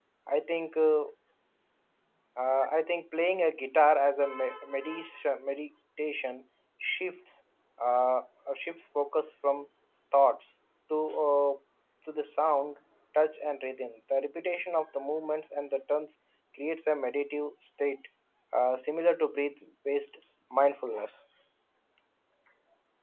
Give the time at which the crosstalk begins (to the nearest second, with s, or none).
none